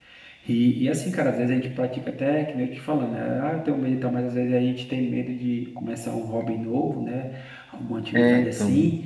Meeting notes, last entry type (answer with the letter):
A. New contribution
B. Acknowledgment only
B